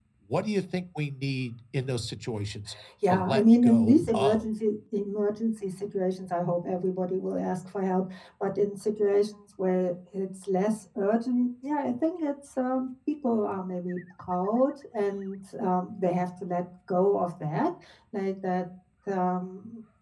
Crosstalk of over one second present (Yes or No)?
Yes